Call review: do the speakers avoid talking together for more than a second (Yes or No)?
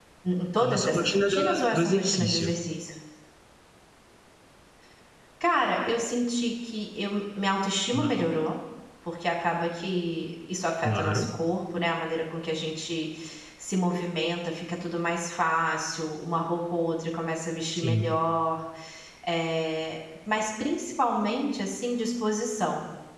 No